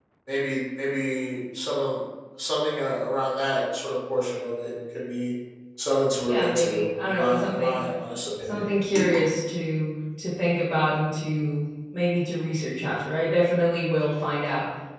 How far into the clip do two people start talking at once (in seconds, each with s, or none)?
6.3 s